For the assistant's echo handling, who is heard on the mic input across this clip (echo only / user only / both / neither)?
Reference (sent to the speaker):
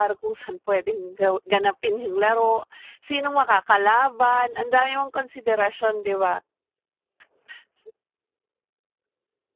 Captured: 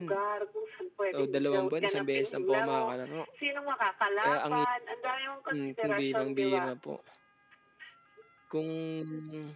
both